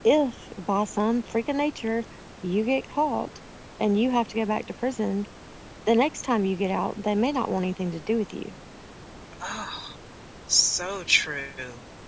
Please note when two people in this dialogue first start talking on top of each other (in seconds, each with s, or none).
none